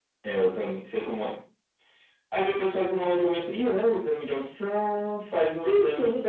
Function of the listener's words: listening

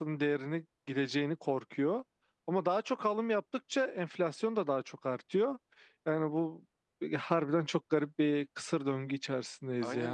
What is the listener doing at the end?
taking over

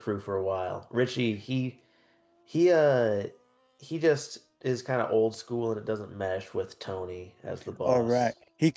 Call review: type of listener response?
taking over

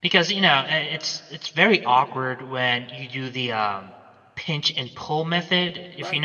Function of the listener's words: taking over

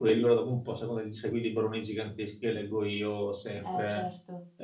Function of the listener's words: listening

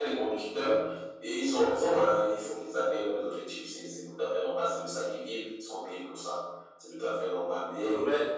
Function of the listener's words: taking over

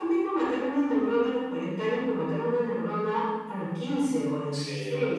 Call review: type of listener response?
listening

